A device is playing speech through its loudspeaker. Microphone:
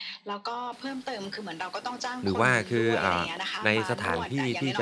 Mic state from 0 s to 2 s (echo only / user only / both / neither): echo only